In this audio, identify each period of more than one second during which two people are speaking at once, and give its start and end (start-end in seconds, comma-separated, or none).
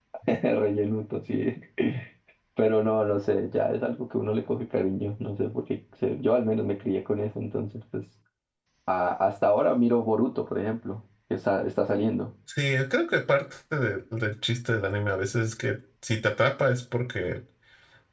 none